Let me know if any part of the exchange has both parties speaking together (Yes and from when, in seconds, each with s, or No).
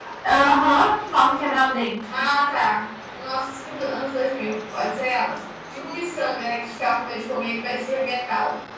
No